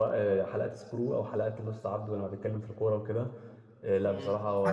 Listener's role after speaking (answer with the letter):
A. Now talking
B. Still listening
A